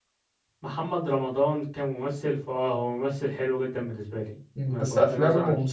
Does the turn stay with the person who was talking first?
No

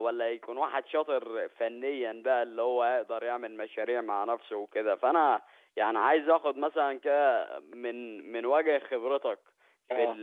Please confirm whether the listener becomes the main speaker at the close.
No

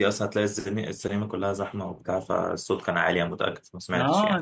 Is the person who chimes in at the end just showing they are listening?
No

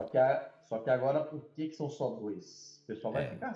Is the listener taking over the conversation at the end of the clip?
No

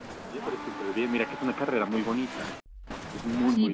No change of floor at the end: No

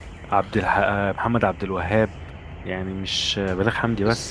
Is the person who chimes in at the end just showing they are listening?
No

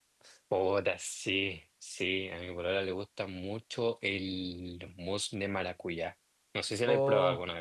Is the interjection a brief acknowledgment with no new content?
No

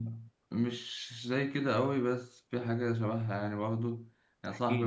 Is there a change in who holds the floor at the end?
No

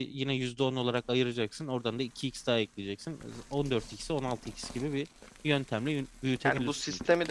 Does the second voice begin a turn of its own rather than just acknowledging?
Yes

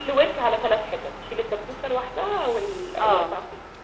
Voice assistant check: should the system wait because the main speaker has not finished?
No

